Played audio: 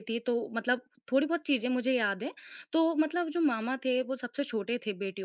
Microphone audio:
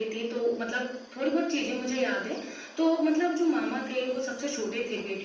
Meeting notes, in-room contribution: none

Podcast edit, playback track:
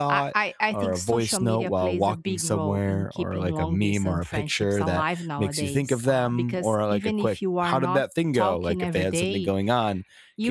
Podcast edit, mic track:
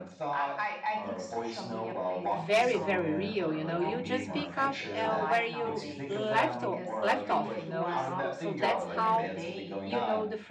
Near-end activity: present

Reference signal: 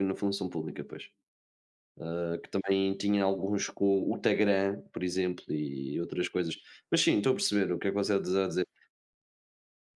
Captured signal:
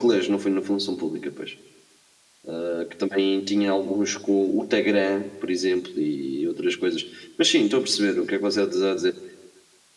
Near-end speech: none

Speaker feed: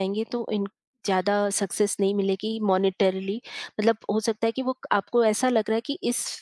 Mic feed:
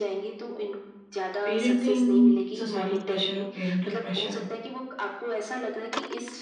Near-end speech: present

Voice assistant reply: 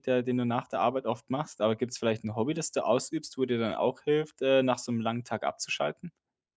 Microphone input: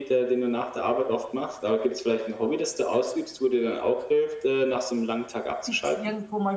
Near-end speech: present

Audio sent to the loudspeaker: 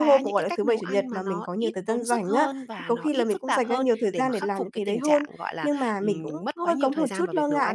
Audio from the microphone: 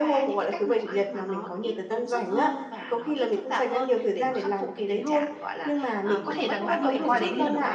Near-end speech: present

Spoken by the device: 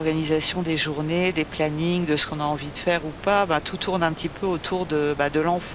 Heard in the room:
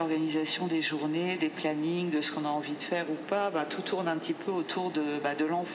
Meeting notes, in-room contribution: none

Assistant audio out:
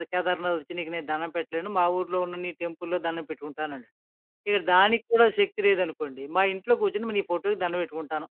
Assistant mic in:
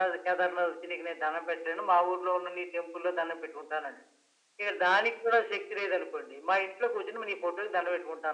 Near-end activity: none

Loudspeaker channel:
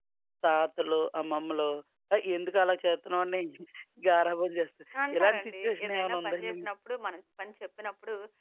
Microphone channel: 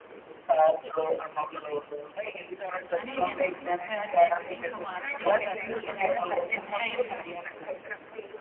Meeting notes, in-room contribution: present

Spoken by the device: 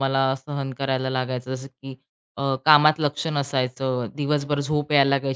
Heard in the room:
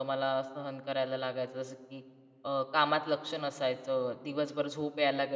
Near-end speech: none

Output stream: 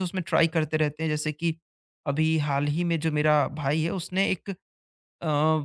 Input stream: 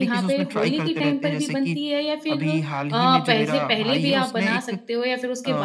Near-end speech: present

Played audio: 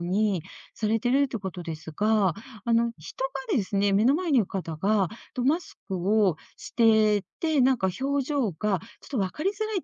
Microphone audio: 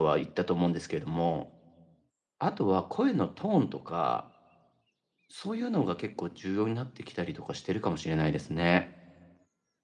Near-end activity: present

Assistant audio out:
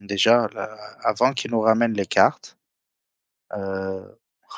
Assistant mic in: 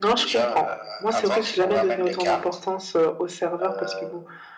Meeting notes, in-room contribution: present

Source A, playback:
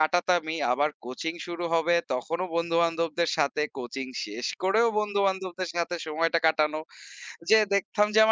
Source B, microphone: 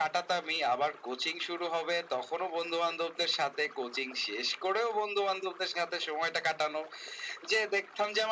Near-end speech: none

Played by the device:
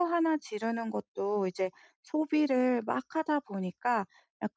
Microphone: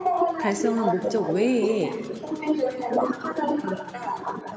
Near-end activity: present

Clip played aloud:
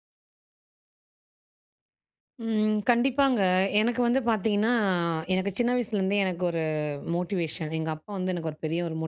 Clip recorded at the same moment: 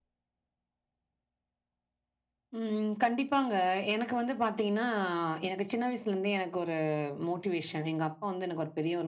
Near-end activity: none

